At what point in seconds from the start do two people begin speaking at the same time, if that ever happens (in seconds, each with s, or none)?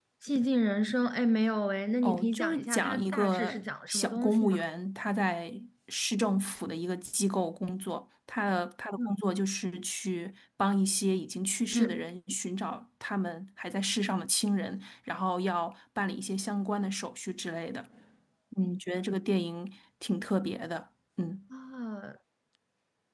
2.0 s